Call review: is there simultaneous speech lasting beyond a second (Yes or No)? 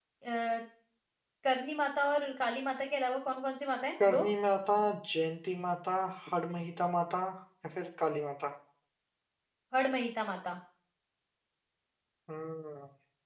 No